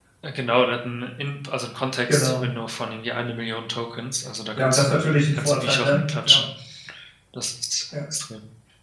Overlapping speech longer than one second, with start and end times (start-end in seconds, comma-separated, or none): 4.6-6.4